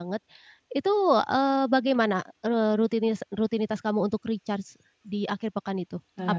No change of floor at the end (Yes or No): No